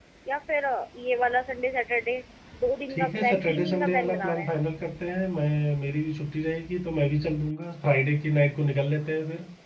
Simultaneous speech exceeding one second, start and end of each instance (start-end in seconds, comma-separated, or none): 2.9-4.5